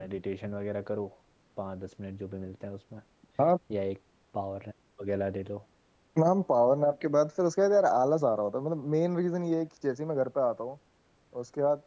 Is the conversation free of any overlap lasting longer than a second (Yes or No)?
Yes